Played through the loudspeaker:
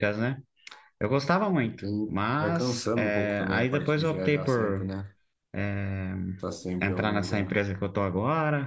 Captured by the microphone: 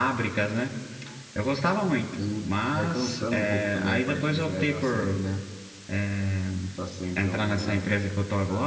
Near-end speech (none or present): present